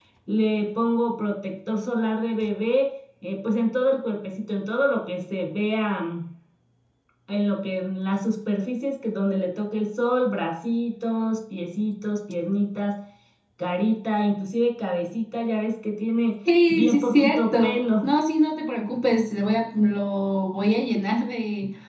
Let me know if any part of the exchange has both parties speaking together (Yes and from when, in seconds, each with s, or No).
Yes, from 16.7 s